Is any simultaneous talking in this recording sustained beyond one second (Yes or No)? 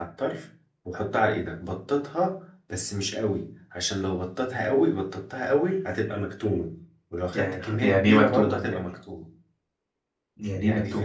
Yes